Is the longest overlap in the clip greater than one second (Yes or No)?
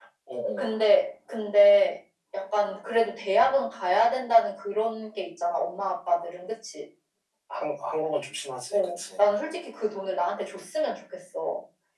No